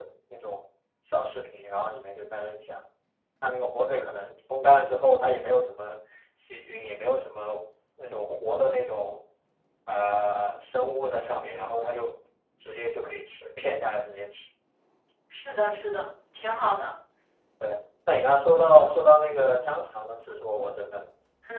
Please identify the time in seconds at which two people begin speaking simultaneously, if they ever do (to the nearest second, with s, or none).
none